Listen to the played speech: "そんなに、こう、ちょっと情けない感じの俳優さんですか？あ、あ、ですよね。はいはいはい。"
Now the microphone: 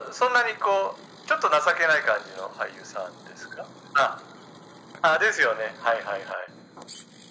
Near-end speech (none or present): none